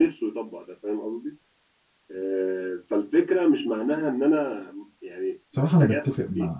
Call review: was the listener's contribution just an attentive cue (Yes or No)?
No